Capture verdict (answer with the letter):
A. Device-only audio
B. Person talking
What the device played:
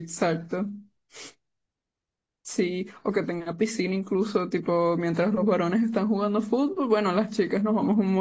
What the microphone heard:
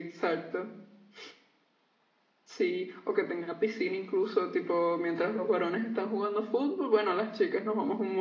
A